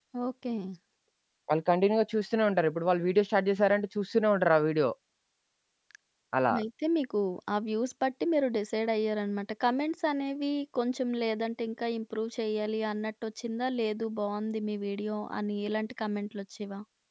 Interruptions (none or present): none